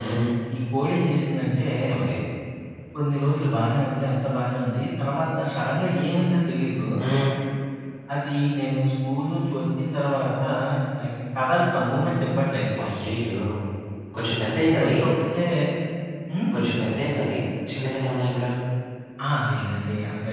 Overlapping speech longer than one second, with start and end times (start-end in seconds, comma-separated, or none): none